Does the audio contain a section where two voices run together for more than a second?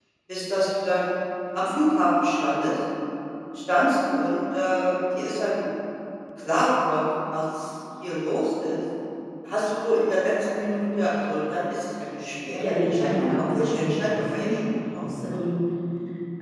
Yes, from 12.6 s

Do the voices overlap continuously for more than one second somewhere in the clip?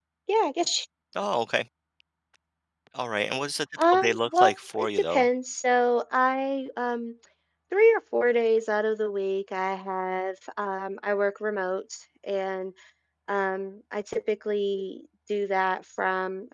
Yes, from 3.8 s

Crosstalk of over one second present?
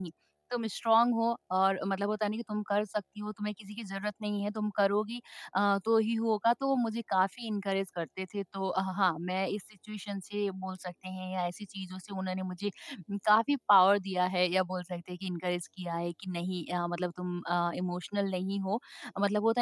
No

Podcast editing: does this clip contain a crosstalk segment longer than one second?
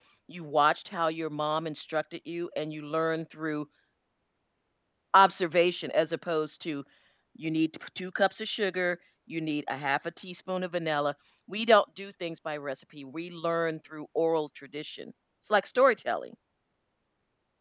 No

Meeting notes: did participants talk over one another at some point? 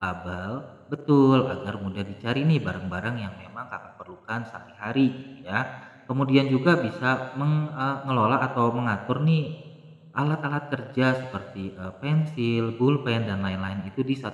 No

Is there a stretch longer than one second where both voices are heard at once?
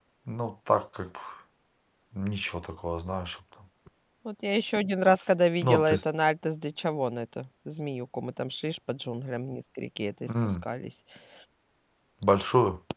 No

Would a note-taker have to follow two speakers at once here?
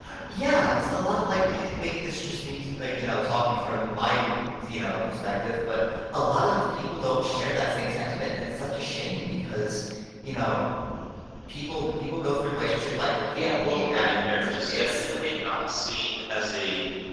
Yes, from 13.3 s

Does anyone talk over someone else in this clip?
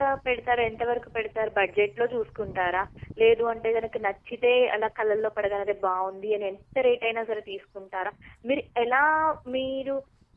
No

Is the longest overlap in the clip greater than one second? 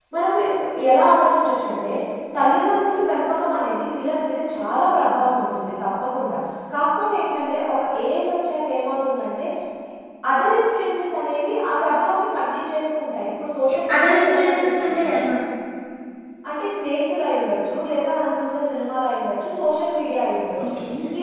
Yes, from 13.6 s

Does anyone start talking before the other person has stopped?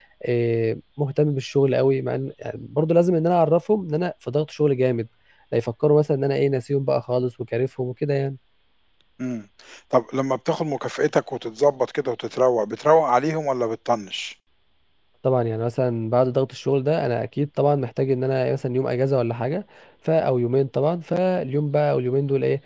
No

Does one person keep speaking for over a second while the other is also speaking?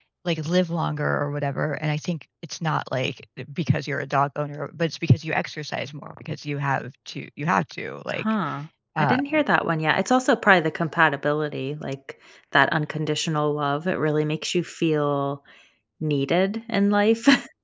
No

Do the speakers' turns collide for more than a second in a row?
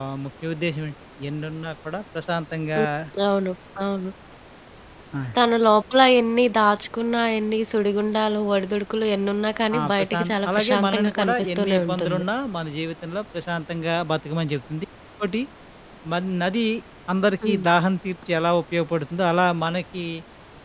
Yes, from 9.7 s

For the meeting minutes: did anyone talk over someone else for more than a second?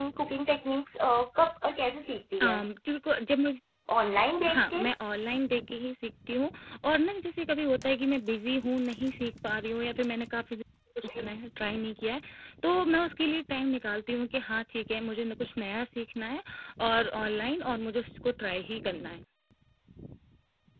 No

